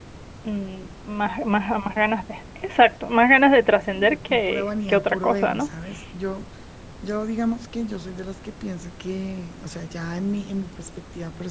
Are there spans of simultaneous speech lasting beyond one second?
Yes, from 3.9 s

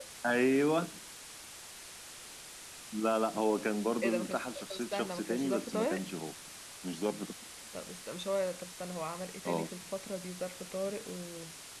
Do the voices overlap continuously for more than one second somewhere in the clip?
Yes, from 4.0 s

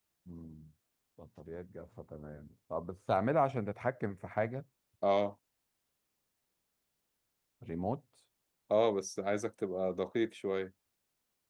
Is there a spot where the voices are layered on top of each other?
No

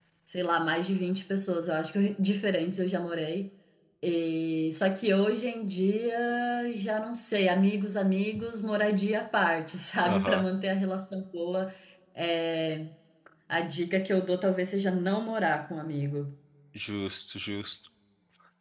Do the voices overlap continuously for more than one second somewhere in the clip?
No

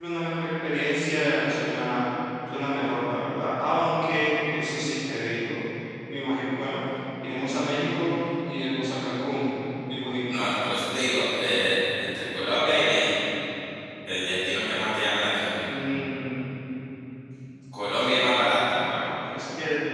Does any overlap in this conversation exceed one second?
No

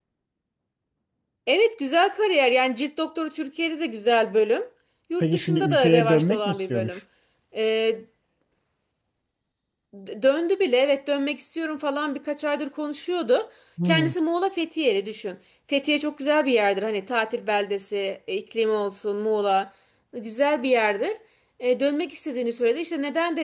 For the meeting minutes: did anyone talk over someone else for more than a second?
Yes, from 5.2 s

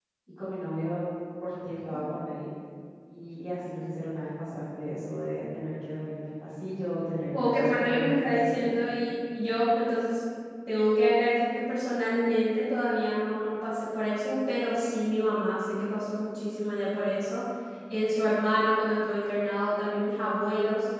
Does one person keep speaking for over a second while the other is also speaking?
Yes, from 7.3 s

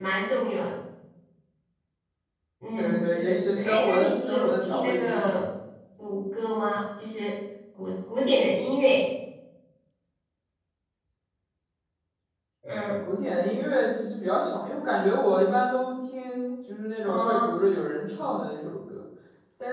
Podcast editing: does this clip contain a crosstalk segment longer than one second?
Yes, from 2.8 s

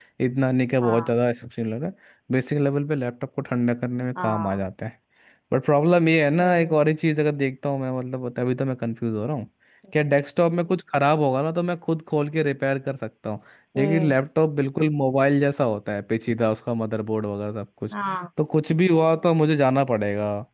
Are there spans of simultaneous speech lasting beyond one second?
No

